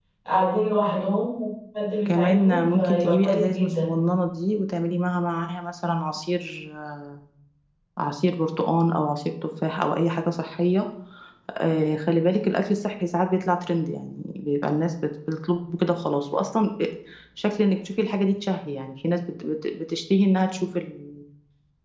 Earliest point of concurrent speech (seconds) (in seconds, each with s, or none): 2.1 s